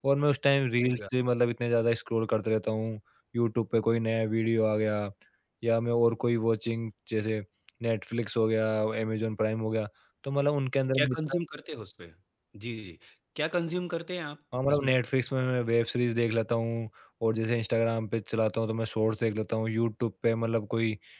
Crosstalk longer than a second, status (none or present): none